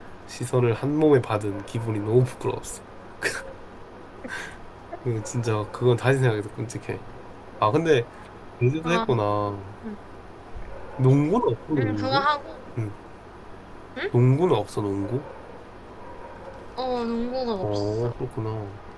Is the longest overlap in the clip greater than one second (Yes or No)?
No